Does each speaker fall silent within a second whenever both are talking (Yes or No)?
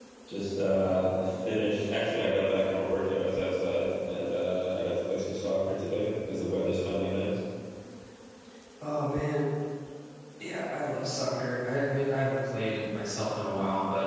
Yes